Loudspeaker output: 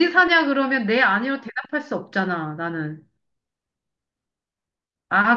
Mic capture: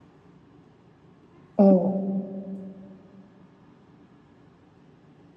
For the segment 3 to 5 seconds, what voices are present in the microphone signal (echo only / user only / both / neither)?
neither